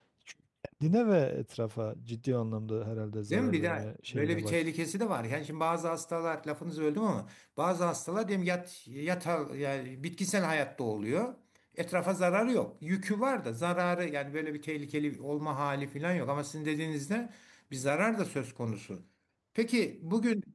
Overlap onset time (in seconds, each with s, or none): 3.3 s